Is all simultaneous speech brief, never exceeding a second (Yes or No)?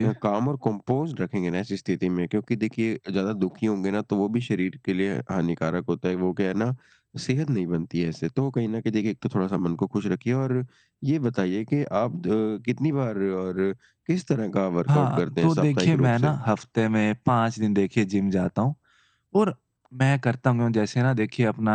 No